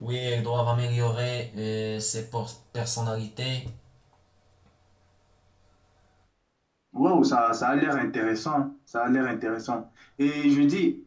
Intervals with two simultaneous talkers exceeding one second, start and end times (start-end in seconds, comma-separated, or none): none